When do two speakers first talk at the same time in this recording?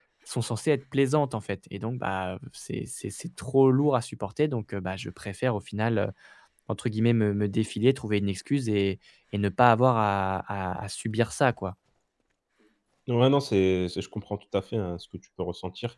none

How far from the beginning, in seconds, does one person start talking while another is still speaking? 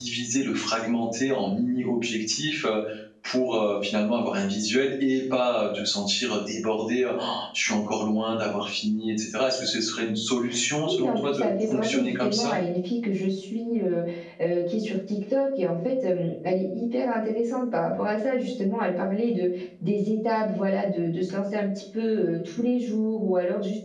10.8 s

